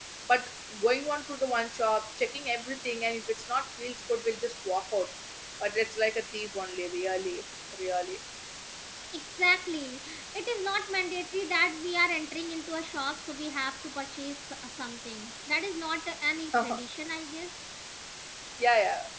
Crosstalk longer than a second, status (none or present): none